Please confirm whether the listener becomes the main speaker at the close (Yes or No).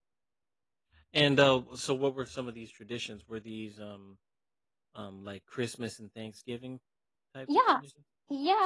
Yes